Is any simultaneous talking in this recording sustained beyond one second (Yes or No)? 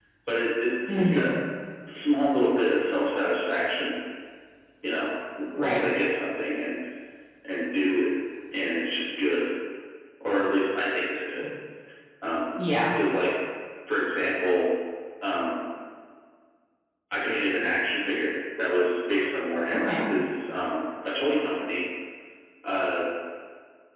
No